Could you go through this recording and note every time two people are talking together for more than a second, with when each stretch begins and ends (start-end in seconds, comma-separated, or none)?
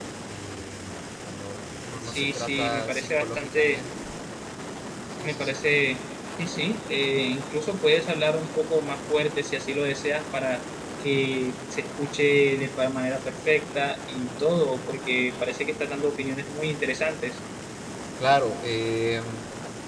2.0-3.8